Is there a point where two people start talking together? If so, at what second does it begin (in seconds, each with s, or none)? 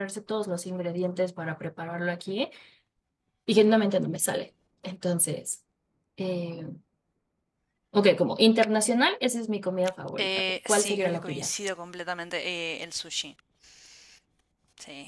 10.2 s